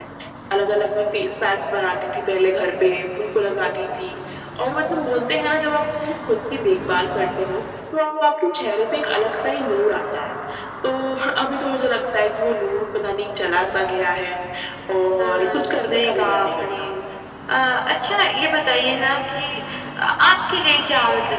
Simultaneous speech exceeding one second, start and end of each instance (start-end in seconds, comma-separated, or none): 15.2-16.7